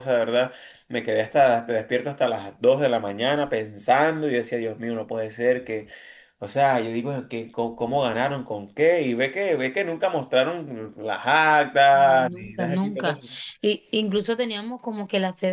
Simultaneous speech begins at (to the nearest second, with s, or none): 12 s